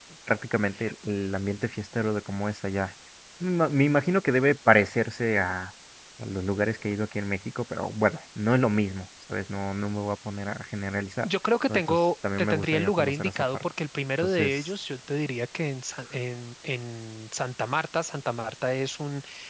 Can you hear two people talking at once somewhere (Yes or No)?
Yes